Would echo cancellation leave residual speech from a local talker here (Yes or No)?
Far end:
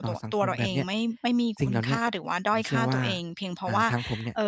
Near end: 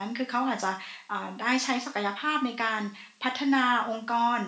Yes